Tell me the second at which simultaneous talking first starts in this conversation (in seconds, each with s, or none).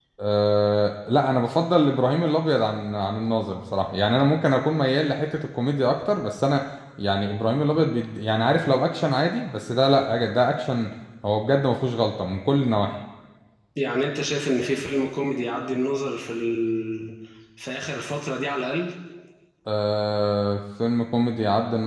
none